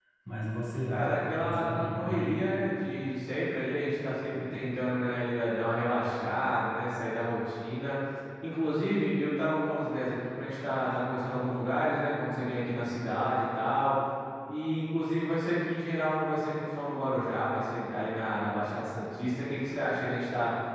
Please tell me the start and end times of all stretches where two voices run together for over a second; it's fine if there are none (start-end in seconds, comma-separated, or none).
0.8-2.3